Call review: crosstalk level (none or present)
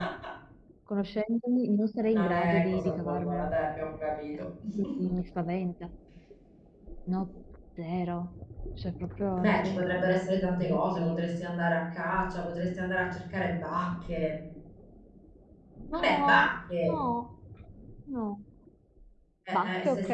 present